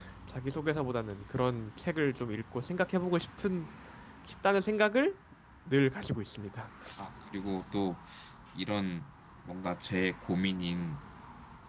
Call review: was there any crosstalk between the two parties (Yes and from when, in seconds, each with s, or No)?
No